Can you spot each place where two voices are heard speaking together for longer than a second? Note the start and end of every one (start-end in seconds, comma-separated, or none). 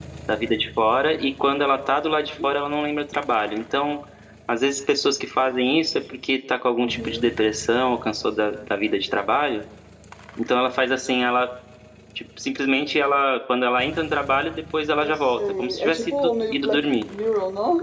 15.0-17.1